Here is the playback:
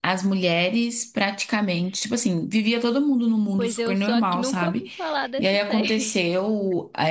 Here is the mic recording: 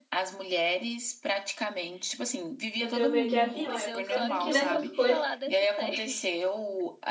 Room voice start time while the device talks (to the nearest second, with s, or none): 3 s